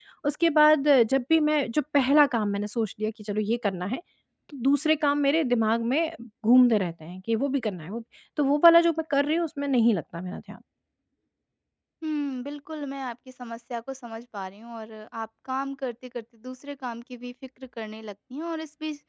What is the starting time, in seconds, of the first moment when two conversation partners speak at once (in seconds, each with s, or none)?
none